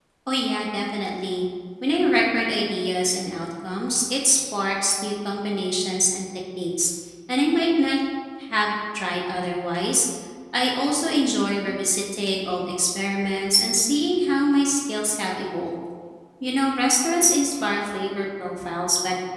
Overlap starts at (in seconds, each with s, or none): none